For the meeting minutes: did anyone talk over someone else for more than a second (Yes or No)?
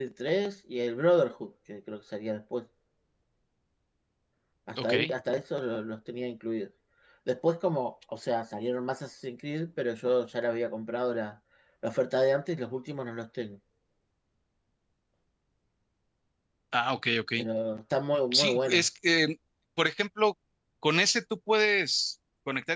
No